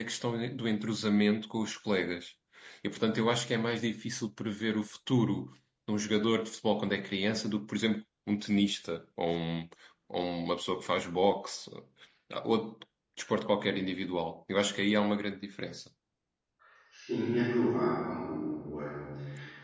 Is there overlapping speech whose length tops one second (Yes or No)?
No